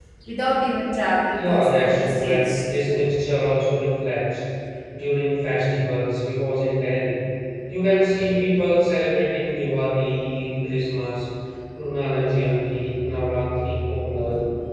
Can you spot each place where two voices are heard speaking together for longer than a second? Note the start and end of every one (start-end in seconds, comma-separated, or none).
1.4-2.6